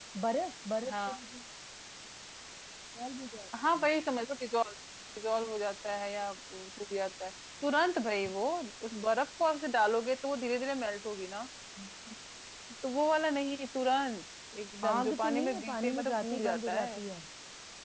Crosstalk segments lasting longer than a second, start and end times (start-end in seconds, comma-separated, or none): 14.9-17.0